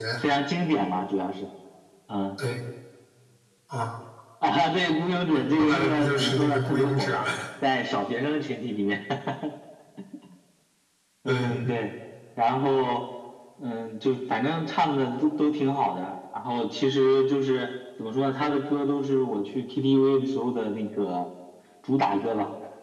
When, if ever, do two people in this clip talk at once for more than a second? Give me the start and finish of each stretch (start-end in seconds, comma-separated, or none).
5.3-7.2